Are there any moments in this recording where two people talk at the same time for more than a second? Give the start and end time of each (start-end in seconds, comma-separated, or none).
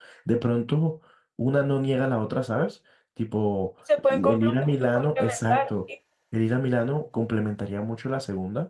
4.1-5.6